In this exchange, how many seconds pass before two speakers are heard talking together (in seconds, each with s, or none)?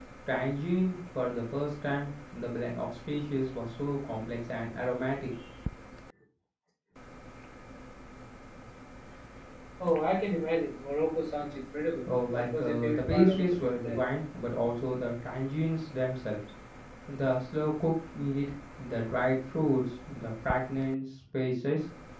12.1 s